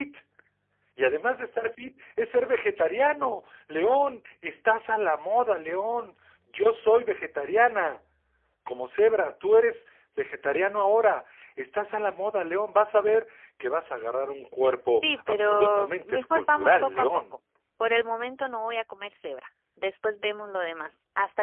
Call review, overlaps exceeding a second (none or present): present